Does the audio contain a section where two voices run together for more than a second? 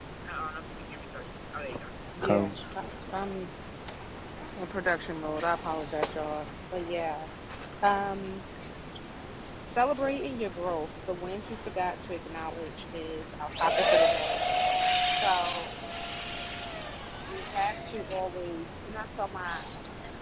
No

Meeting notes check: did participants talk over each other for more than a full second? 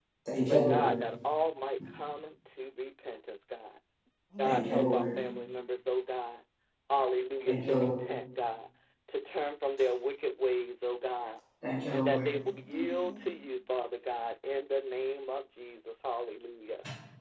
Yes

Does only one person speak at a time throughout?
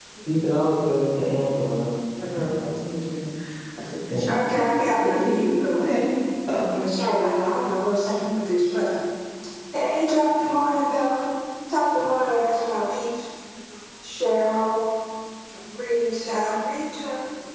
No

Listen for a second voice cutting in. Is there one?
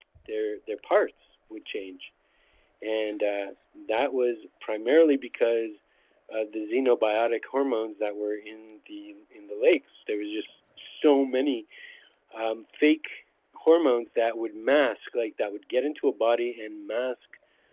No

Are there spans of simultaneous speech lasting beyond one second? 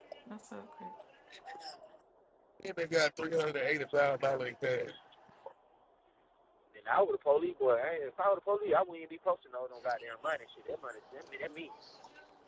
No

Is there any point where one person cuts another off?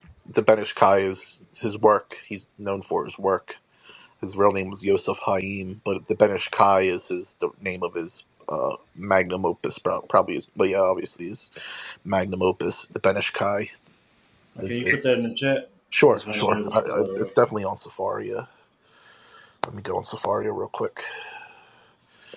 Yes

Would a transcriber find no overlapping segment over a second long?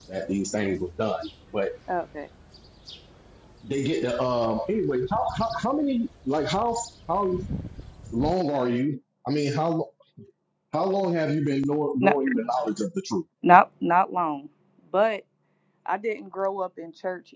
Yes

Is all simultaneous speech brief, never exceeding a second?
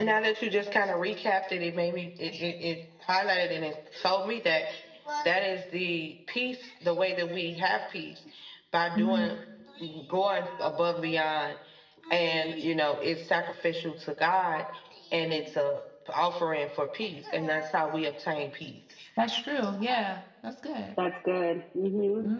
Yes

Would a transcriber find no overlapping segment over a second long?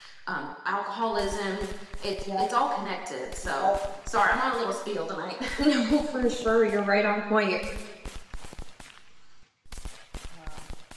Yes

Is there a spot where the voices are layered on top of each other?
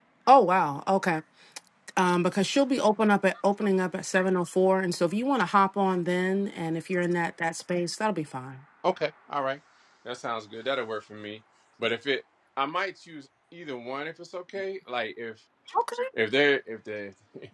No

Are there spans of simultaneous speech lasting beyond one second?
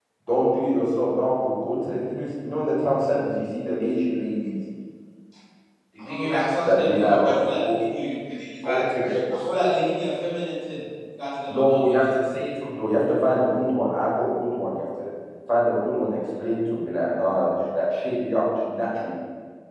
Yes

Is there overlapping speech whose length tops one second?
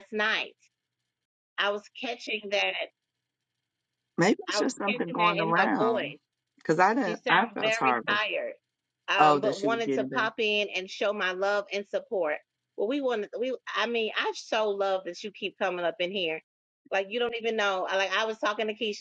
Yes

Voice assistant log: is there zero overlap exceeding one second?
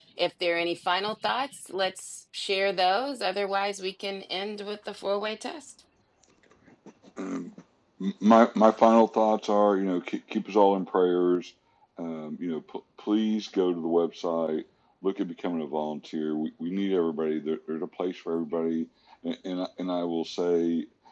Yes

